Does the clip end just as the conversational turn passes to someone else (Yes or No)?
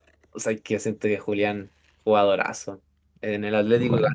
No